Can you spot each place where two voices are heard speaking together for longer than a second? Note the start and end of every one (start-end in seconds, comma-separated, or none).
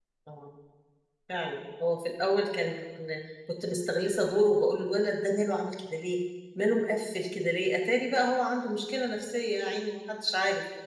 none